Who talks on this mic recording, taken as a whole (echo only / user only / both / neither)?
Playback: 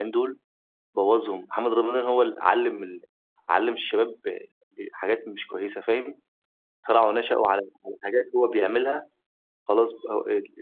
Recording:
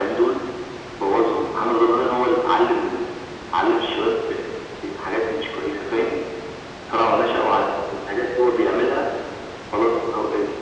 echo only